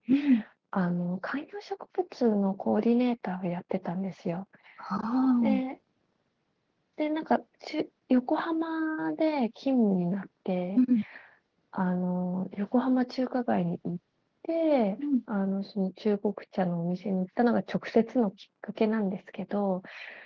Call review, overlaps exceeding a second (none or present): none